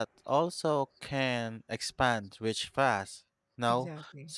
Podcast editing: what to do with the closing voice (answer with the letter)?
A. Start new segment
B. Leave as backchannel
B